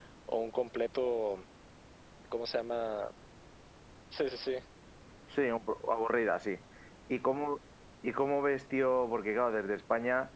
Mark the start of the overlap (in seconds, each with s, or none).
none